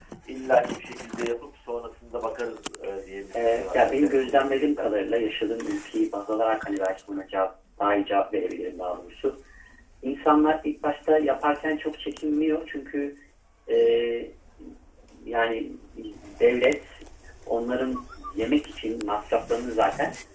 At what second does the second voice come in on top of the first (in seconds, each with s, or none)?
3.4 s